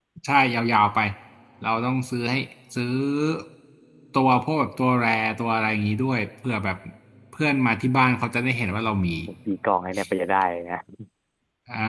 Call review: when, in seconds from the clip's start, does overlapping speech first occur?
none

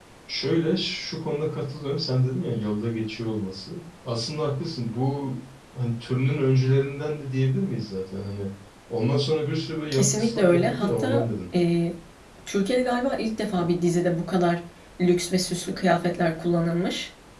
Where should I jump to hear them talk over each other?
9.9 s

